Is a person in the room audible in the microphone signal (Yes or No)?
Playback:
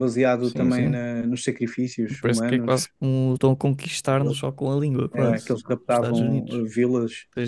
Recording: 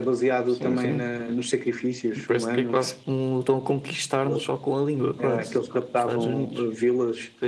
No